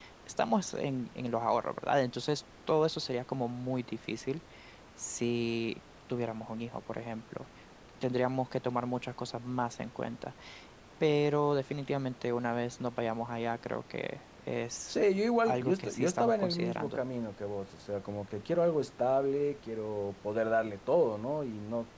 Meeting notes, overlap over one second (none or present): present